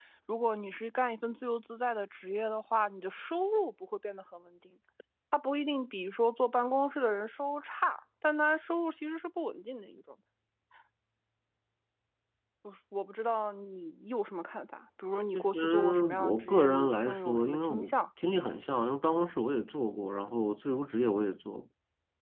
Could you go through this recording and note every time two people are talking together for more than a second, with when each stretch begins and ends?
15.3-17.9

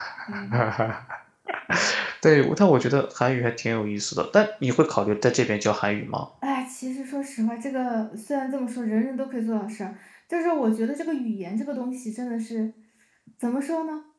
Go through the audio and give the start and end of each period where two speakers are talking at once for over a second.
none

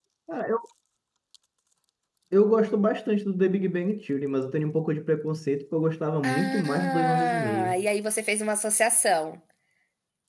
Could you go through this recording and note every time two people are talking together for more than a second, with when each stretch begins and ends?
6.2-7.8

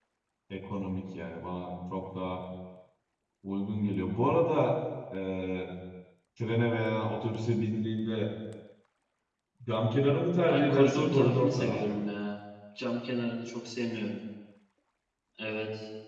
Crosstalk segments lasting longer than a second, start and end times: 10.5-12.0

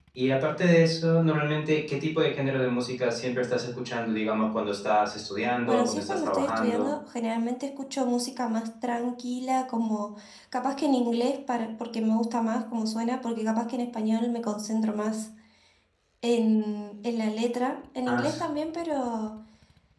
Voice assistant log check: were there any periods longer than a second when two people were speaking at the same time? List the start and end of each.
5.6-6.9

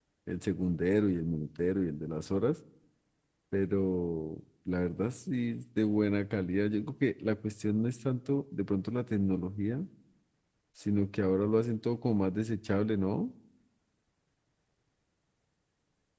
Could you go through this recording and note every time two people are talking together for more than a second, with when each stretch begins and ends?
none

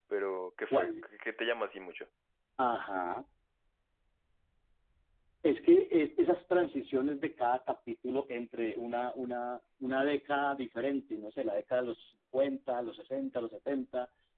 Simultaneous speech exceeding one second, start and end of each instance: none

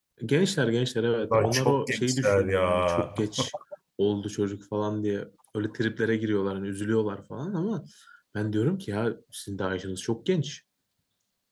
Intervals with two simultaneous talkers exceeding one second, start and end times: 1.3-3.1

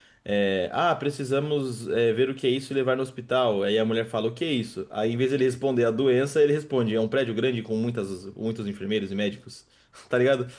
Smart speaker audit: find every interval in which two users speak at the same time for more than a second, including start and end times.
none

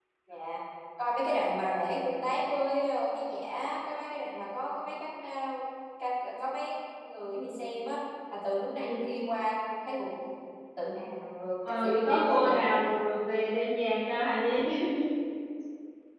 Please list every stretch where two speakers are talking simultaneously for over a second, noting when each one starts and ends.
11.7-12.9

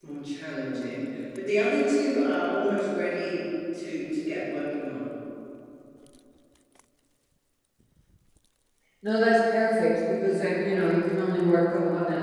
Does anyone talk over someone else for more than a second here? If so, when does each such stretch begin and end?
none

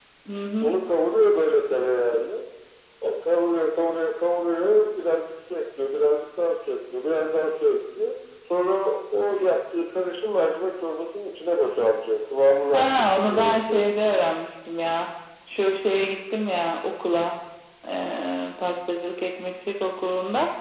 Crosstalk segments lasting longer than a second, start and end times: 12.7-13.9

